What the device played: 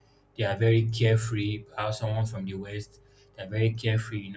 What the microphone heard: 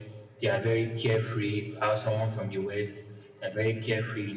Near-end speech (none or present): none